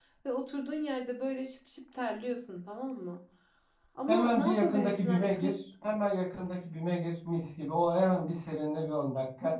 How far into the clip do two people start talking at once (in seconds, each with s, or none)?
4.1 s